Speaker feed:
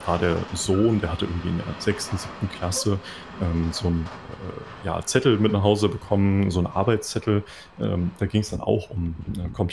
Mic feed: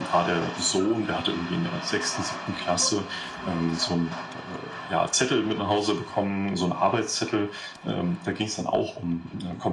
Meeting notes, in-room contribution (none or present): none